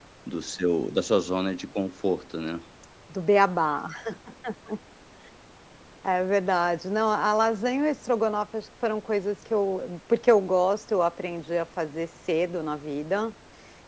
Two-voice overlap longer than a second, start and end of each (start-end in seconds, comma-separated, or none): none